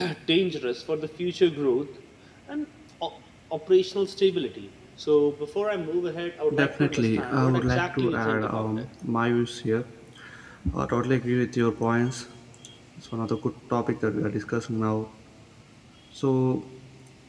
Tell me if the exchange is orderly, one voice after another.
No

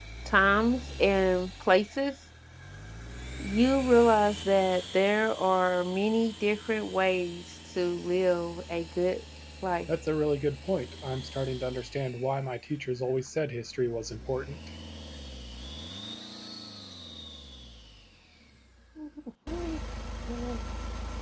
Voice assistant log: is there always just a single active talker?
Yes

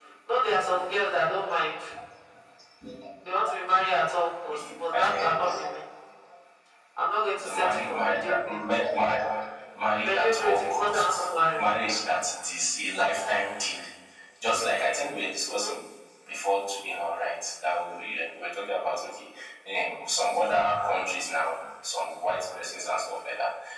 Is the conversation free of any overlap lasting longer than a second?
No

